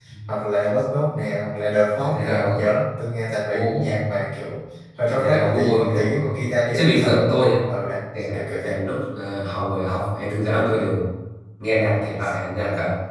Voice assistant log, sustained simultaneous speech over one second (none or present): present